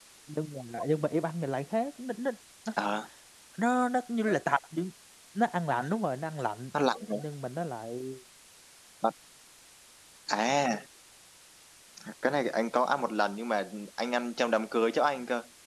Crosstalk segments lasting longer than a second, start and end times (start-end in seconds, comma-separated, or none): none